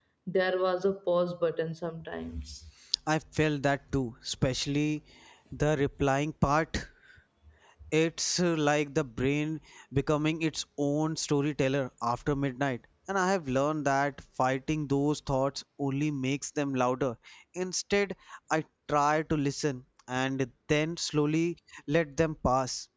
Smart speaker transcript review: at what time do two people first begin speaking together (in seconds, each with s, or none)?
none